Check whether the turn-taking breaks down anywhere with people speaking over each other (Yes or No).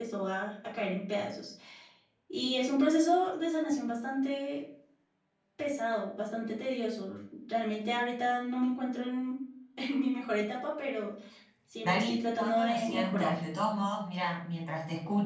Yes